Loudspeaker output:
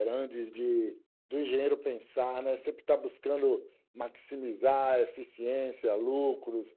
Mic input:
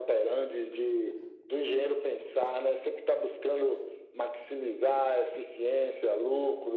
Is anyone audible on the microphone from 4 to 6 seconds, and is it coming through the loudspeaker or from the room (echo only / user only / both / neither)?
echo only